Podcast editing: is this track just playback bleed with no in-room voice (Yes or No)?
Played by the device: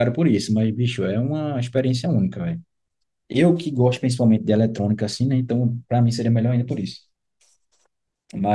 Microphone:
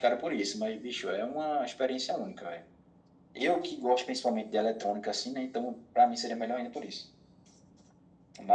Yes